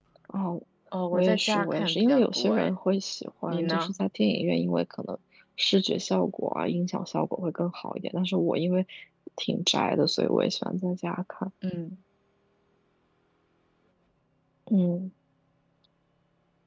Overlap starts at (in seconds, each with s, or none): 1.1 s